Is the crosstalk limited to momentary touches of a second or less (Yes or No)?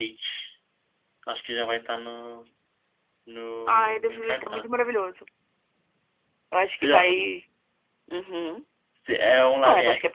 No